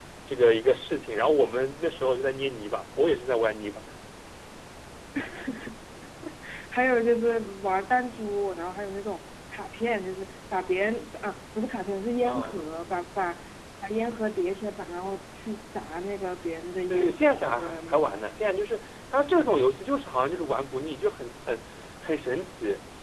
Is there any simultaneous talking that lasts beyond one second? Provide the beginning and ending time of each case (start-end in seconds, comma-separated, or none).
16.9-18.2